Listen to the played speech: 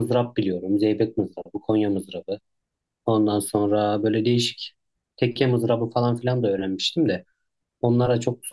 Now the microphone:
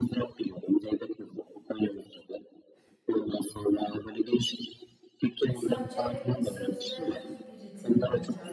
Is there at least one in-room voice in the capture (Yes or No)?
Yes